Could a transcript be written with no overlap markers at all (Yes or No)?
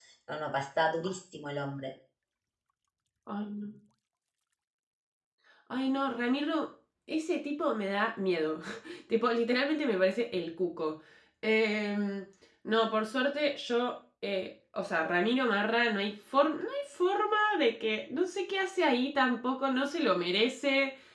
Yes